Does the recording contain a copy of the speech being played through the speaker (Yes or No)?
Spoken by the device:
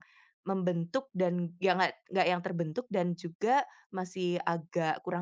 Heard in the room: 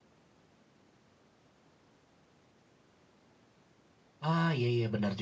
No